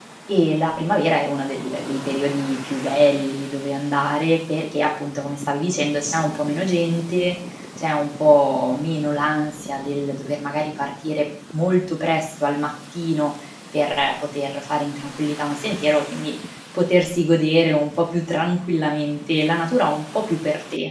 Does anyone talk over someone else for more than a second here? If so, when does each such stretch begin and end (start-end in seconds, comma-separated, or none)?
none